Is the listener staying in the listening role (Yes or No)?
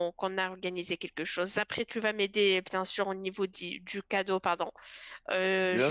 No